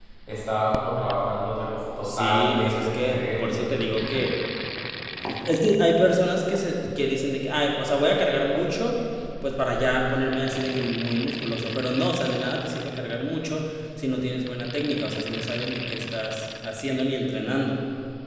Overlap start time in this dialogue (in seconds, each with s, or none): 2.0 s